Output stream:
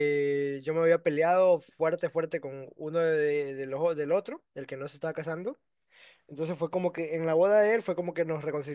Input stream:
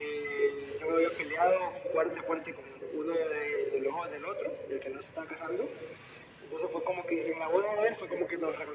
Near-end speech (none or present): none